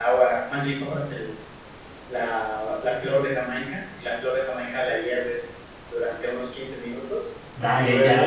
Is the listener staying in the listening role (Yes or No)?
No